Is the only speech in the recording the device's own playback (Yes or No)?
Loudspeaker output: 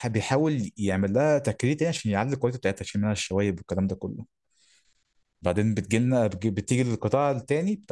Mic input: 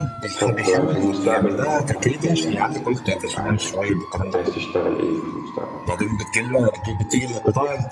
No